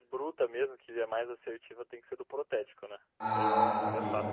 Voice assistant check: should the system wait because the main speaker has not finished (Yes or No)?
No